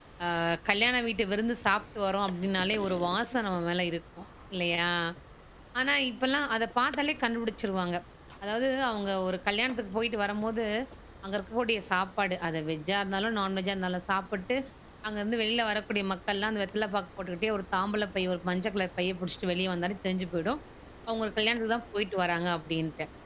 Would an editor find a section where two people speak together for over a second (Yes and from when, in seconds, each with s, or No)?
No